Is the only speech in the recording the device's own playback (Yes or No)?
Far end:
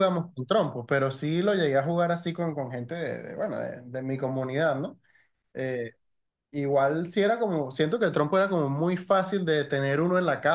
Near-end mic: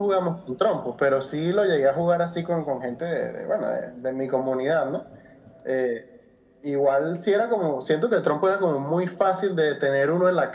Yes